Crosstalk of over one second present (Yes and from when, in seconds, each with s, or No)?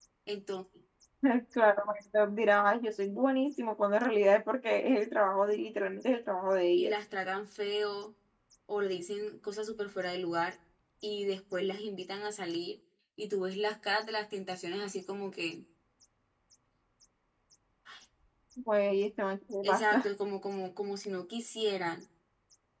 No